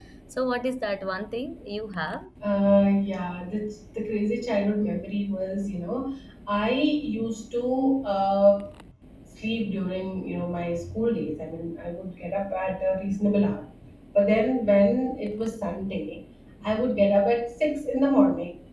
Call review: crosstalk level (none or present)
none